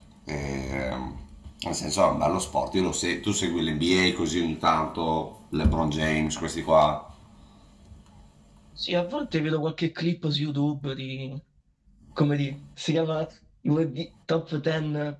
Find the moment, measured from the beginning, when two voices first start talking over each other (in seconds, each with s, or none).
none